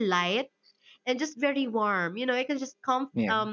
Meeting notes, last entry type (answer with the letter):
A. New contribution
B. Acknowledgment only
B